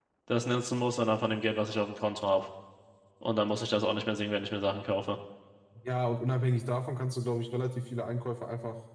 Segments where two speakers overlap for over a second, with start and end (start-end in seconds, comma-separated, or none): none